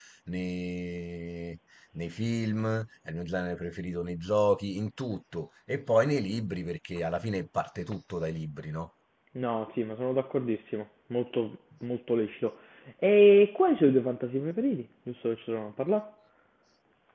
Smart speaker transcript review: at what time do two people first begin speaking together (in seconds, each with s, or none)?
none